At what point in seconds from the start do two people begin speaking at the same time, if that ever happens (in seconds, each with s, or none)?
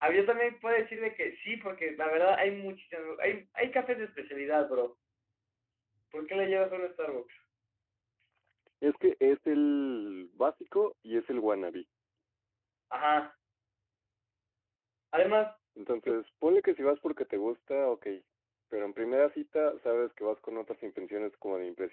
none